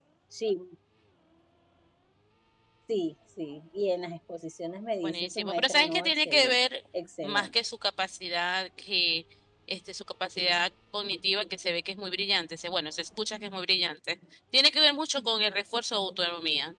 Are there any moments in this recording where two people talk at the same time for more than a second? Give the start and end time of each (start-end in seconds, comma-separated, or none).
5.0-6.6